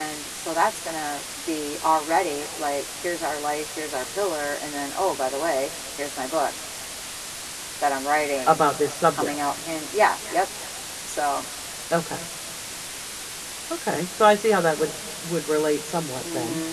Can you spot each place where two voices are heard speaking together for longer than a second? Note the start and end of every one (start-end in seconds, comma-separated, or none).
none